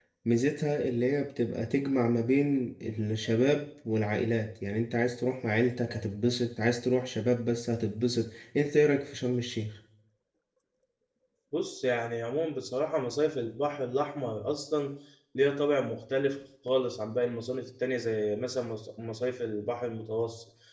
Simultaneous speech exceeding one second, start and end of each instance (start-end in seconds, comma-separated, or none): none